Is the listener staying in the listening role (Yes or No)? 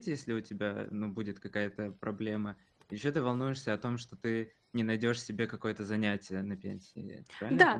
No